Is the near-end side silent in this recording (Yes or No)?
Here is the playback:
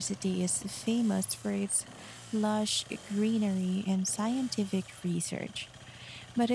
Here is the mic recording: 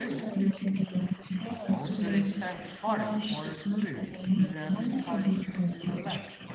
No